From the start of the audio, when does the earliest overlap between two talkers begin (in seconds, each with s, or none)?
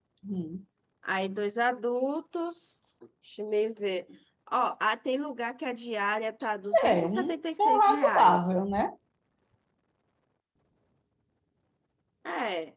6.7 s